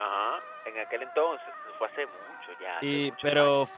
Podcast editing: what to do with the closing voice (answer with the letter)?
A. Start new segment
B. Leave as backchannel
A